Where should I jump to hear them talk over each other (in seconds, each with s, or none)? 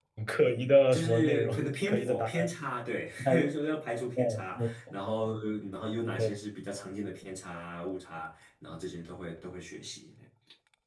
0.9 s